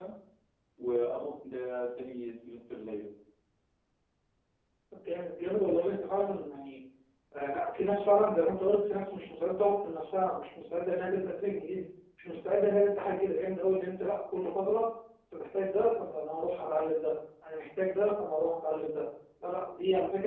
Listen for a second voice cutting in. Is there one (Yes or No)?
No